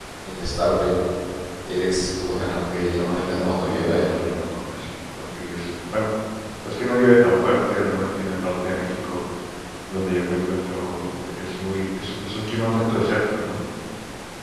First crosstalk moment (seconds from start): 2.3 s

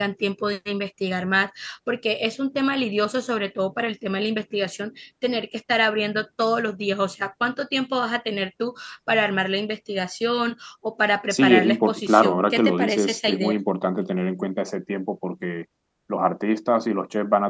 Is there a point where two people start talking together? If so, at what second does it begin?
11.3 s

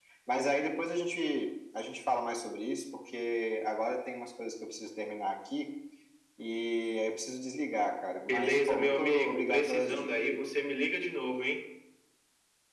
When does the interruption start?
8.3 s

